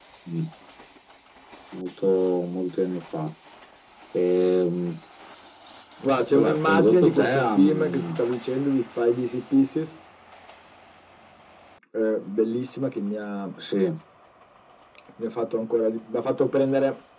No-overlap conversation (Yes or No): No